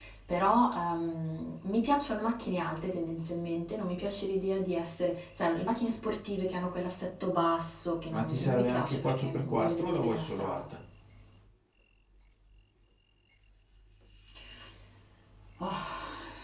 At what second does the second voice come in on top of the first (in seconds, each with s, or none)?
8.1 s